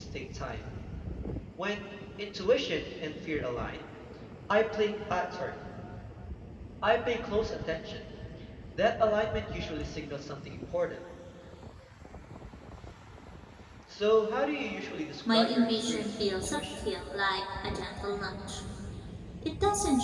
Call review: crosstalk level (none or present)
present